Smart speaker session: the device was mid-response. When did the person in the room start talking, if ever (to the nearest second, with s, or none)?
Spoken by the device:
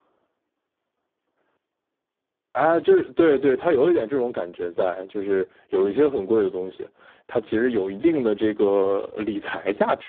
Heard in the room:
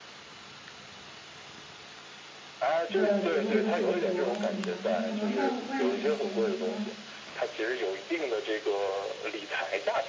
3 s